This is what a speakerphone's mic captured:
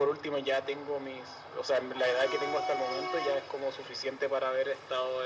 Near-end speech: none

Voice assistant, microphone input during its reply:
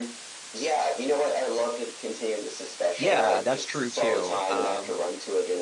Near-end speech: present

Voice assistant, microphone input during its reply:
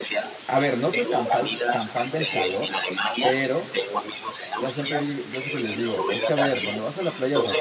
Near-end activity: present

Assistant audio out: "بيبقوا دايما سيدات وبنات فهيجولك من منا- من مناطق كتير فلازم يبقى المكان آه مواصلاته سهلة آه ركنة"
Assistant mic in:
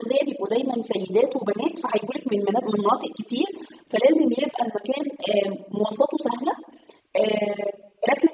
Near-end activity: none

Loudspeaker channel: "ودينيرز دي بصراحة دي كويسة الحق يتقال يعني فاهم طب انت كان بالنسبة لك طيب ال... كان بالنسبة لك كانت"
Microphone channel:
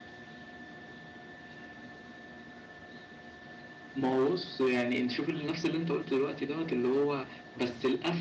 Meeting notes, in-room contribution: present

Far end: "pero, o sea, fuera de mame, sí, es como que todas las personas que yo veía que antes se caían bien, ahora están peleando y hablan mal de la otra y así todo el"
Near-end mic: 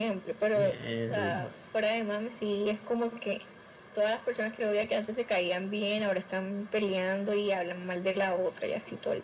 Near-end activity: present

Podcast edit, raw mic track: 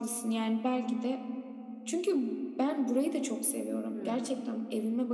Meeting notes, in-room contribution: present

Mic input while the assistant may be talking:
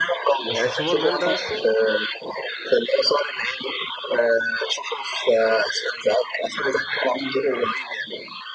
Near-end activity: present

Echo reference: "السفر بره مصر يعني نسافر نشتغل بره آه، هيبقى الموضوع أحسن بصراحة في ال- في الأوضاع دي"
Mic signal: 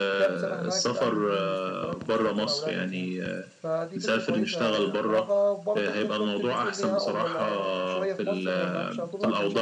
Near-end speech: present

